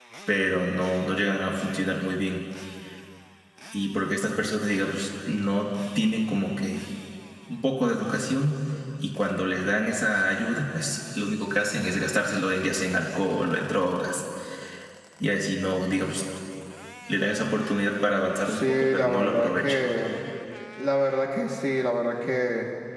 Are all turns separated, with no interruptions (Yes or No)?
No